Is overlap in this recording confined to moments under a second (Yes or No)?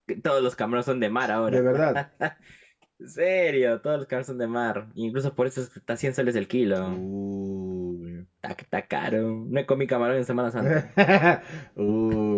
Yes